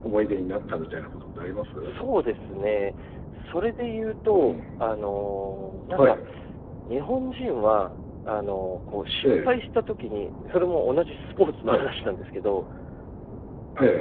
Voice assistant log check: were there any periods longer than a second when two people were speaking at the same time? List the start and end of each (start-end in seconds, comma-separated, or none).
none